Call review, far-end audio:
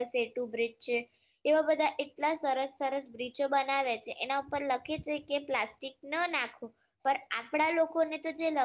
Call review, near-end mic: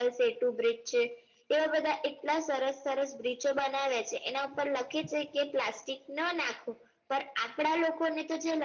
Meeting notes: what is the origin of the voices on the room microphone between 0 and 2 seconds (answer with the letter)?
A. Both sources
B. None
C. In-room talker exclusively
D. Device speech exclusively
D